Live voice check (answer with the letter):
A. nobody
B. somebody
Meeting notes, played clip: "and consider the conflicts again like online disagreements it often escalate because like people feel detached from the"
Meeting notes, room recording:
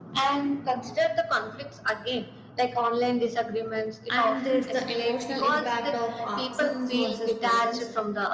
B